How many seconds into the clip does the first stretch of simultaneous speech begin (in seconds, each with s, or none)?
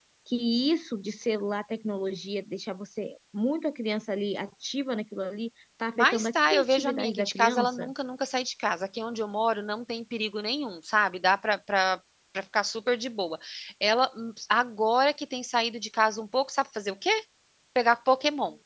6.0 s